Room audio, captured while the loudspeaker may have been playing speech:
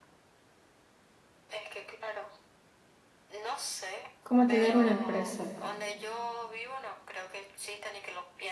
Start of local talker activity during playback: 4.2 s

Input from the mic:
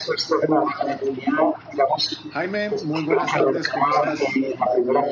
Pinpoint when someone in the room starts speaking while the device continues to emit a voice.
2.3 s

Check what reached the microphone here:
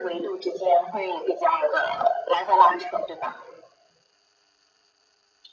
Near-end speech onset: none

